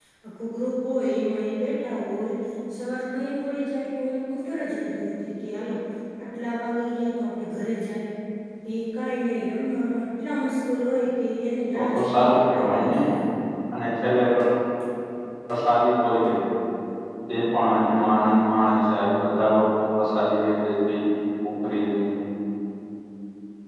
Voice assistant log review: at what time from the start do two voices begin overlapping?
12 s

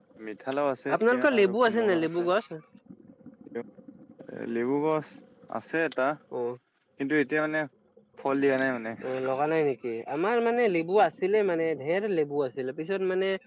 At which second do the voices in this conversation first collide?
1 s

